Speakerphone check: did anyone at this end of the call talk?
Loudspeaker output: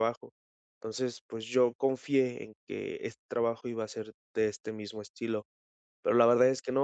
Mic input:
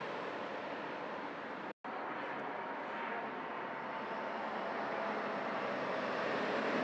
No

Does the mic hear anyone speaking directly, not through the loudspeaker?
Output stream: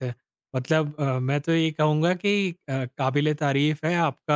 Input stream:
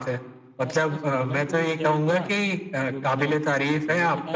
Yes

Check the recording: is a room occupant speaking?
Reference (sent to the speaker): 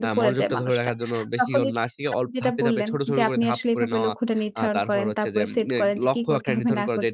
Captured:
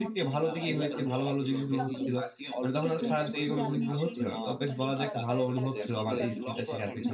Yes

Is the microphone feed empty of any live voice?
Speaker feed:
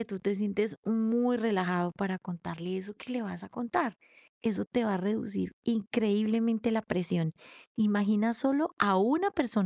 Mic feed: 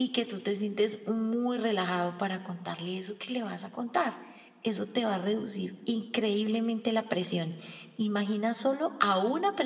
Yes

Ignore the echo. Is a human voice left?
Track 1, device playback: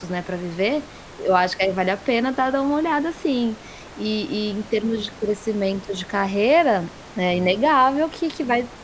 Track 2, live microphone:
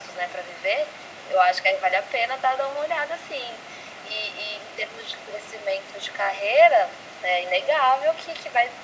No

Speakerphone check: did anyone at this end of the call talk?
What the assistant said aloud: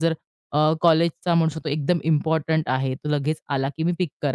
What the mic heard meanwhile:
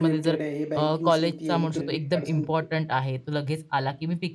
Yes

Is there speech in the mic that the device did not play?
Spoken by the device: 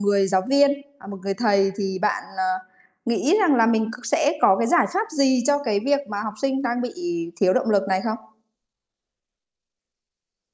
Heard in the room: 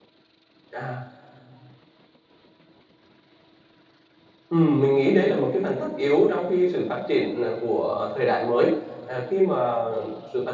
Yes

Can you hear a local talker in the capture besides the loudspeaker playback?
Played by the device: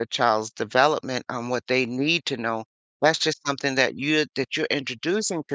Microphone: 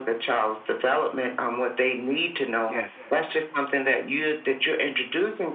Yes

